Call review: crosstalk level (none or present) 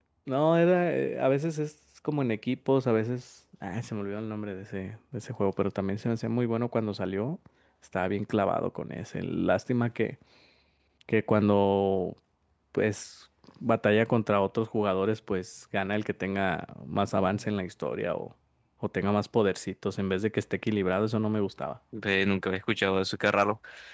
none